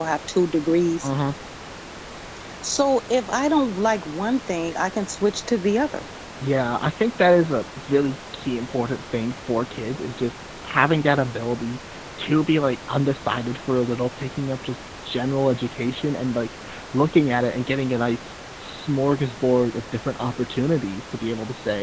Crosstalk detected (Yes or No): No